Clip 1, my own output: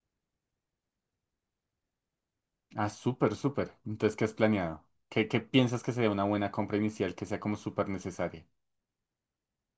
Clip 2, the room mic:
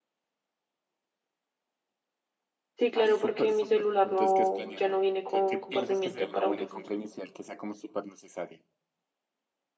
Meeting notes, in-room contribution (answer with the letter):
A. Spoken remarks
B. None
A